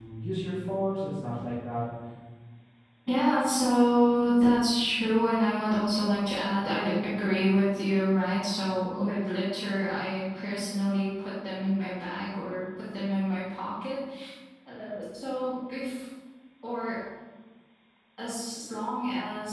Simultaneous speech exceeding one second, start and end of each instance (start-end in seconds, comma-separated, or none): none